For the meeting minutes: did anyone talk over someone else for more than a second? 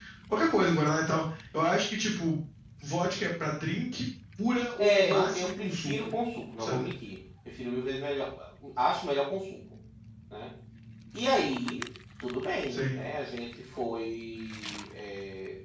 Yes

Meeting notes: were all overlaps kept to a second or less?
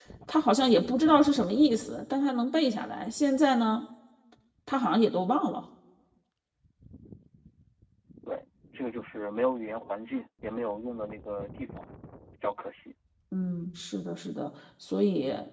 Yes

